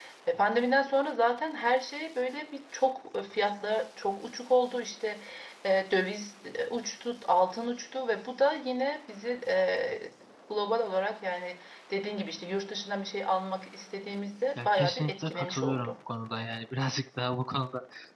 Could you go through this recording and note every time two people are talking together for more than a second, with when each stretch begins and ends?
14.6-16.0

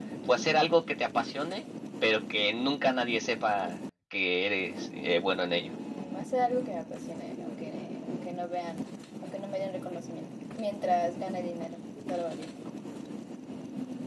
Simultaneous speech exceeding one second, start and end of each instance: none

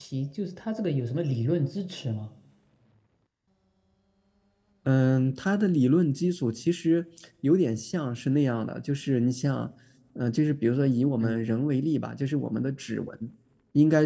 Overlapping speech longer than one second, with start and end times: none

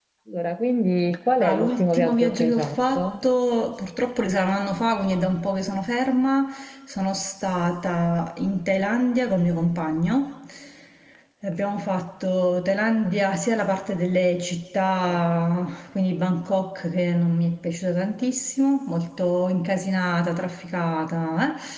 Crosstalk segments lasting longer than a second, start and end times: 1.4-3.1

